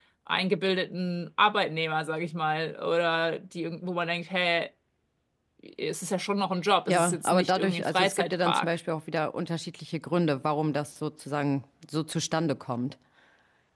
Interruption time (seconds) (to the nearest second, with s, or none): 7 s